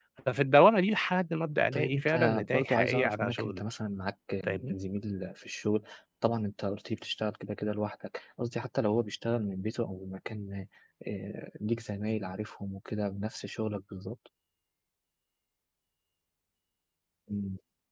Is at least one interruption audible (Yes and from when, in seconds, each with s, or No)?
Yes, from 1.7 s